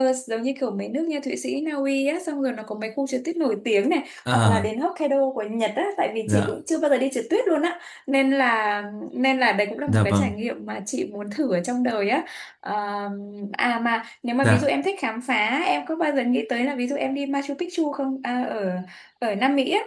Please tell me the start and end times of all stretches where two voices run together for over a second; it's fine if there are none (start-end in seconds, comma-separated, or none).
none